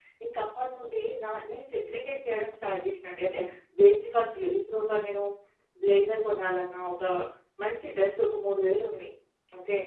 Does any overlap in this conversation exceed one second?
No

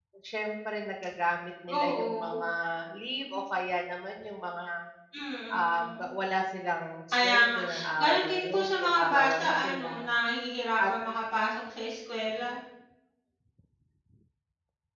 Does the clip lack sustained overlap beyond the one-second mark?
No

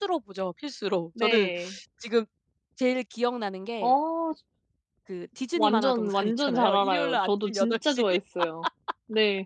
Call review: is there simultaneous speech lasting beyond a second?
Yes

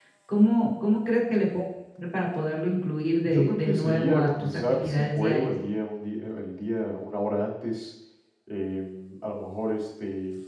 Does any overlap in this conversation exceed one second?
Yes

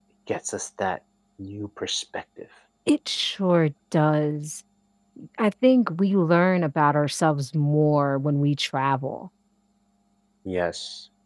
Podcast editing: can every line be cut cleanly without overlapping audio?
Yes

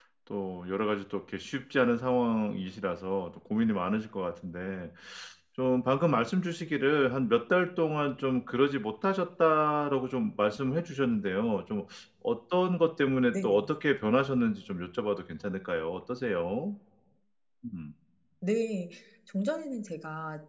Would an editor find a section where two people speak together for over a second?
No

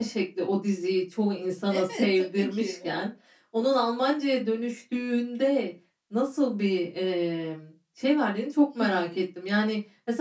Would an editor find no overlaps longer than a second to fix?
No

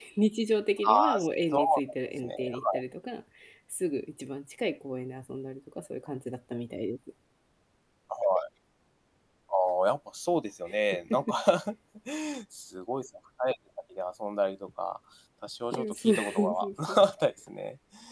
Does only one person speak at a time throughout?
No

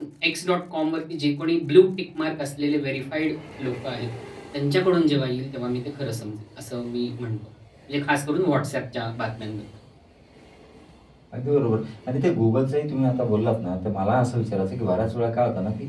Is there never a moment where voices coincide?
Yes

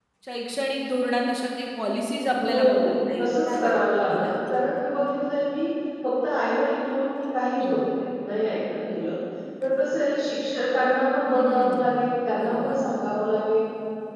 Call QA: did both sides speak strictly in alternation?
No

